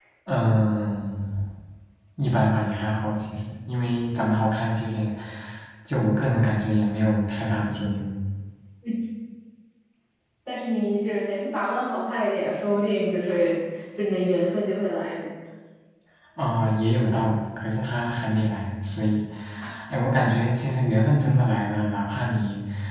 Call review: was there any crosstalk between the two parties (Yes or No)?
No